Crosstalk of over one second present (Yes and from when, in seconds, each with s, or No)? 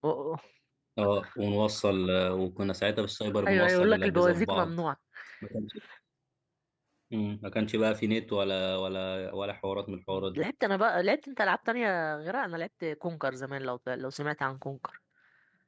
Yes, from 3.5 s